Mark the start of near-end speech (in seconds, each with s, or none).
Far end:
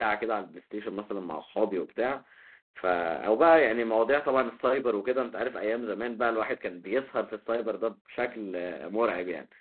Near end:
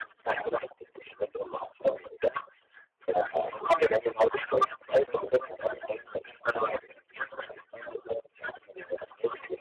none